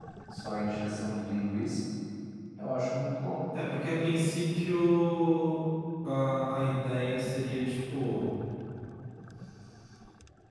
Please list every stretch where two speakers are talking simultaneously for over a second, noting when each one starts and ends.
none

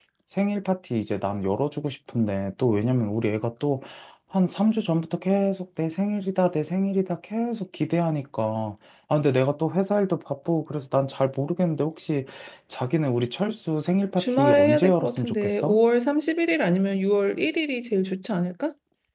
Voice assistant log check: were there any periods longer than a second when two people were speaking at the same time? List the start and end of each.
14.2-15.8

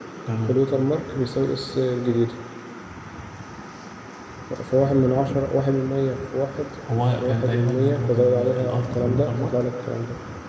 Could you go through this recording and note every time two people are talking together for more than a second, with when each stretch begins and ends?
7.1-9.6

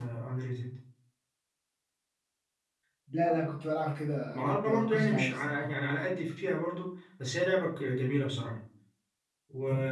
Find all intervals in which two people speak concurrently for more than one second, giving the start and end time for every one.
4.3-5.6

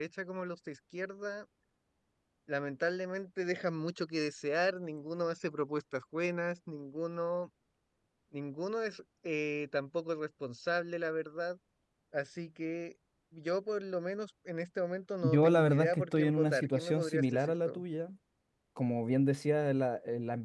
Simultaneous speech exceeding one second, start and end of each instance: 15.2-17.8

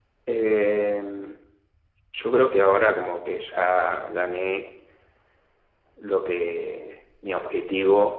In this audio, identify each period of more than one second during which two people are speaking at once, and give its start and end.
none

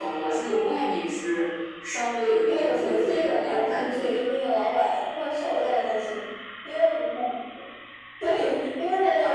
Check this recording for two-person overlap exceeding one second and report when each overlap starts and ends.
2.5-4.2

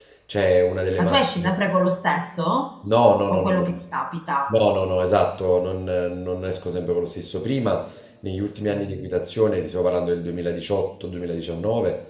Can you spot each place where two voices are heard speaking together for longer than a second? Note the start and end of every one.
none

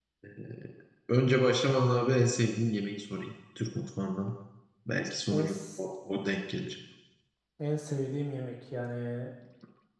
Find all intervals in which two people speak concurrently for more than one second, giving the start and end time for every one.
none

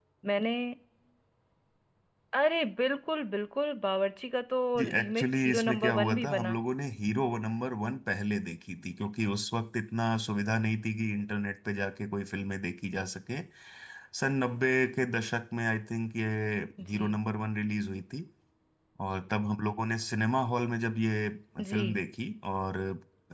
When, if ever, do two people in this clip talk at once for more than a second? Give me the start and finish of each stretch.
4.8-6.6

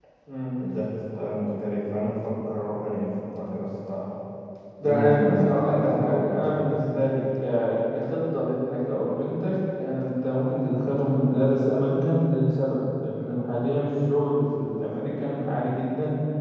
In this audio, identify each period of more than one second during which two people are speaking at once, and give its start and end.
4.8-6.4

